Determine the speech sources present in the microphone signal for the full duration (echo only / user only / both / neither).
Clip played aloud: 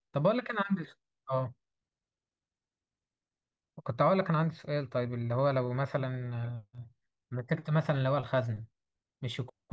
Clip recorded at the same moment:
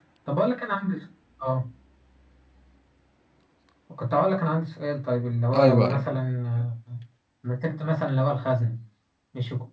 both